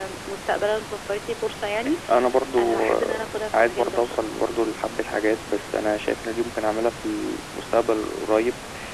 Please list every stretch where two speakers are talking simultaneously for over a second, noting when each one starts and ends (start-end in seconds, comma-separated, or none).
2.6-4.2